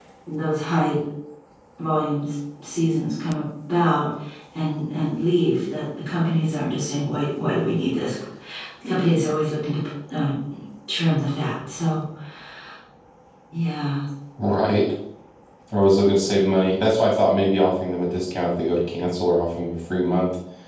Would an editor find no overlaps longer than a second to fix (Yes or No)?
Yes